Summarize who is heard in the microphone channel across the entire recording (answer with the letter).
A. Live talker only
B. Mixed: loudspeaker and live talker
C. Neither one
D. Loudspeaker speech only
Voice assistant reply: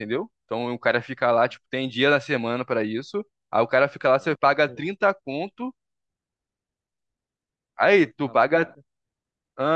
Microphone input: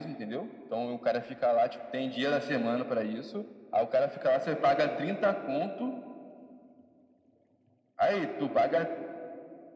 D